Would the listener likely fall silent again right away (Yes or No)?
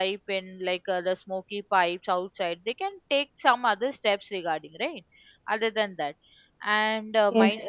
Yes